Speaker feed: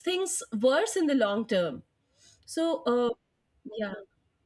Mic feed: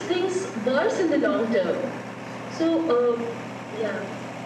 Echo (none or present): present